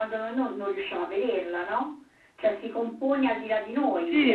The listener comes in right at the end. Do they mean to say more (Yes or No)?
Yes